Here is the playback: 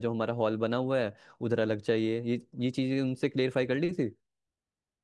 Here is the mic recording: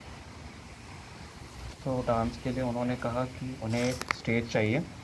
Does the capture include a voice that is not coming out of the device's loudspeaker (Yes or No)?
Yes